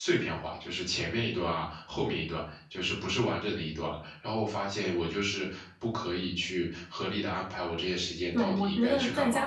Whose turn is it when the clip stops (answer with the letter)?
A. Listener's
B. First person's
A